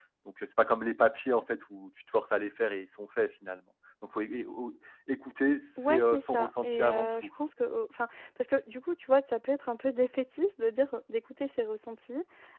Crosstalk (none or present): present